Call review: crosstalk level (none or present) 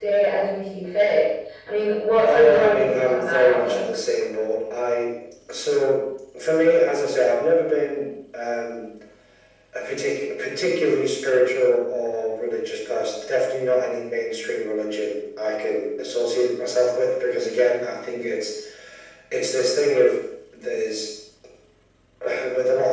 present